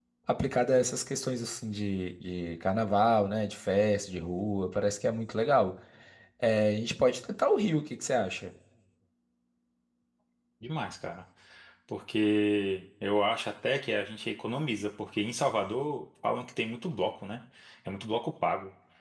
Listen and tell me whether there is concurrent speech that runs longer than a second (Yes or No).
No